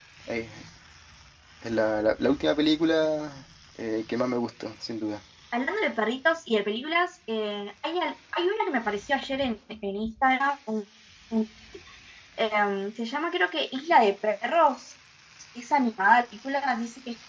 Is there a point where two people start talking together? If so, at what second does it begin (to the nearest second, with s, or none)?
none